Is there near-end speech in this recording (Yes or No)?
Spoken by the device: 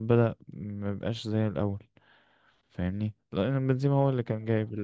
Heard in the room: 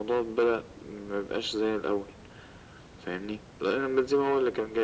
No